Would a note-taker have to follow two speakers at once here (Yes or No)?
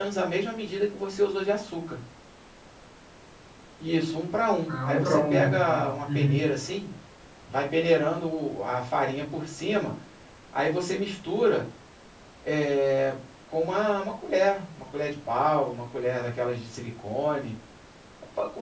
Yes